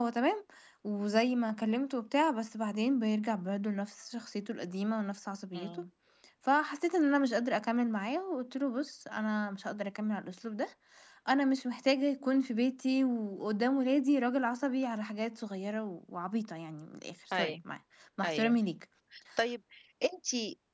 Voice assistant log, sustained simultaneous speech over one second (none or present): none